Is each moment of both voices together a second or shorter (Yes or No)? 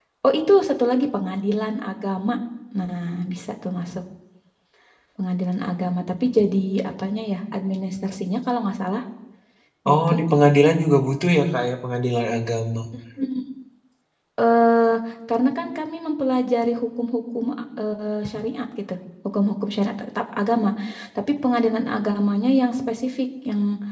Yes